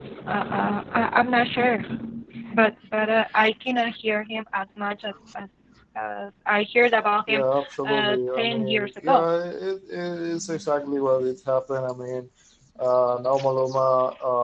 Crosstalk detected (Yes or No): Yes